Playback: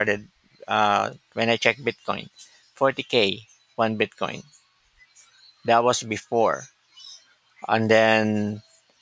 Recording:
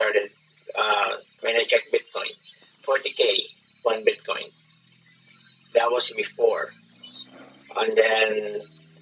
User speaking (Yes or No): No